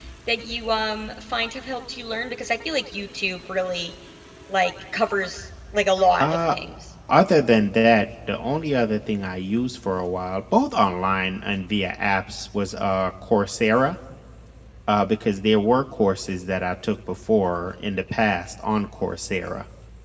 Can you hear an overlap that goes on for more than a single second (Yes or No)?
No